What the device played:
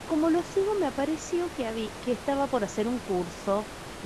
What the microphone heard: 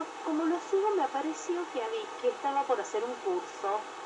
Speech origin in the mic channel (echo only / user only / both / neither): echo only